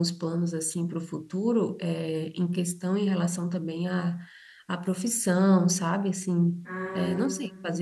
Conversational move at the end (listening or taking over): listening